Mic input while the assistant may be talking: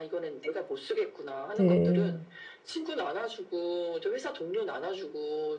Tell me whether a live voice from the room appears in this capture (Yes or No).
Yes